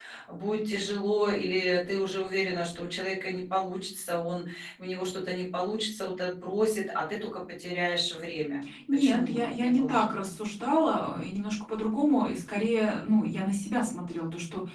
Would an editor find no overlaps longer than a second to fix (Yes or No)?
No